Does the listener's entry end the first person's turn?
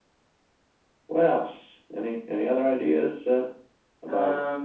No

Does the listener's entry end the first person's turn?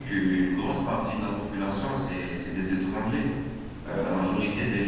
No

